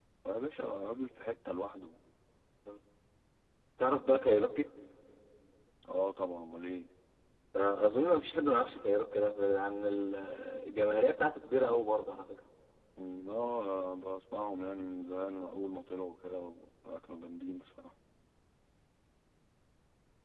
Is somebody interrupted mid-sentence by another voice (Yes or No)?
No